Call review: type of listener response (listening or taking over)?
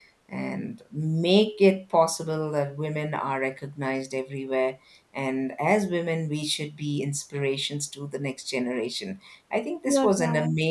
listening